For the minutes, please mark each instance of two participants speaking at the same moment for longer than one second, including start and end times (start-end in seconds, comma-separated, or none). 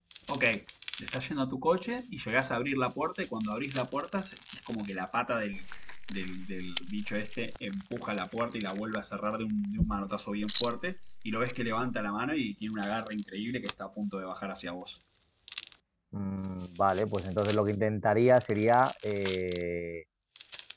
none